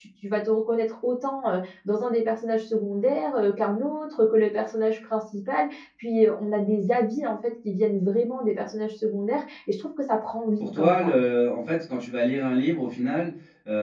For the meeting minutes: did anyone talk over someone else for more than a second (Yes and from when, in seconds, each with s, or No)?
No